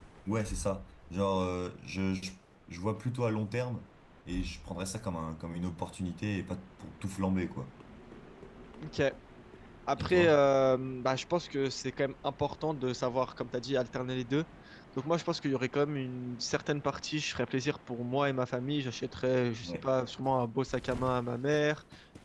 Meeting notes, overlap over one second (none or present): none